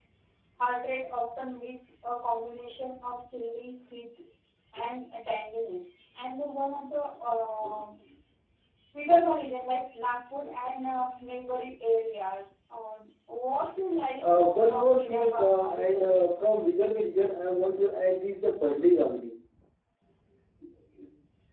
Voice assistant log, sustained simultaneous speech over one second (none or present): present